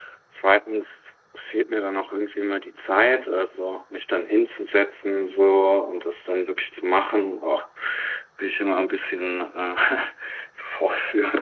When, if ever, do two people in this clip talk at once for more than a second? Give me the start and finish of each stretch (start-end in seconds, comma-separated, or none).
none